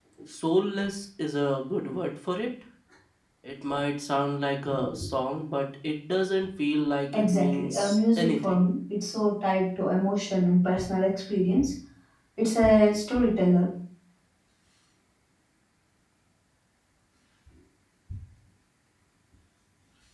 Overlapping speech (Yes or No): Yes